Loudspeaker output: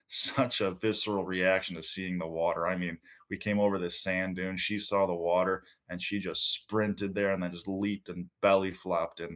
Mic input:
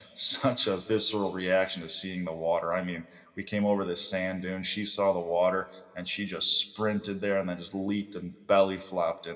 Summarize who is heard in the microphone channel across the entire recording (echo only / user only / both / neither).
echo only